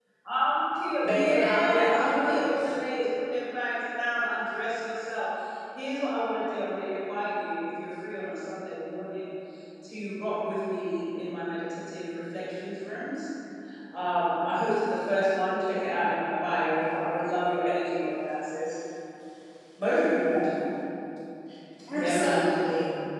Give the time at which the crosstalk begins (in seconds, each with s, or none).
1.0 s